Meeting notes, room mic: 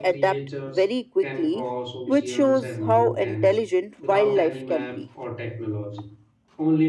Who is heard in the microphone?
both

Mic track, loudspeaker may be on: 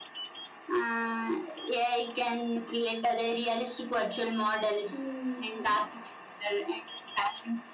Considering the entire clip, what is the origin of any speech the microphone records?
both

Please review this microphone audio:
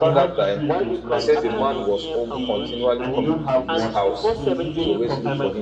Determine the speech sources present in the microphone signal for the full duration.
both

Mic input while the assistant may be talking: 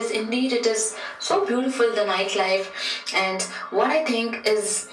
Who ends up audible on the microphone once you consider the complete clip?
echo only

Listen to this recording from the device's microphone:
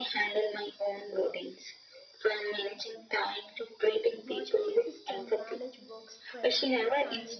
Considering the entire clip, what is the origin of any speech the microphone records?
both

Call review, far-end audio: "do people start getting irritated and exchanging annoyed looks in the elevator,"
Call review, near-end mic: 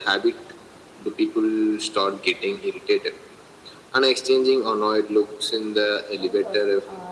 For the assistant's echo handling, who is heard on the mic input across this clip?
both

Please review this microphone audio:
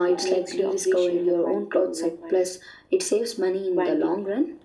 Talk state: echo only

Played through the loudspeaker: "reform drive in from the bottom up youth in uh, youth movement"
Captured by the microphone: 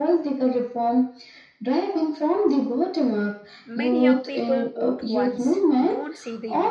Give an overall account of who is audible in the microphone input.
both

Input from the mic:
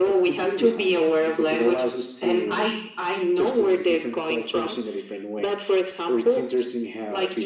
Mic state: echo only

